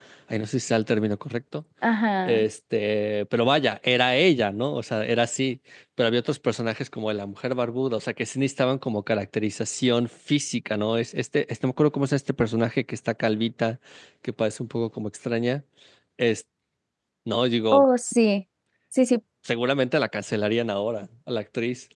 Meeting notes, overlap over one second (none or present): none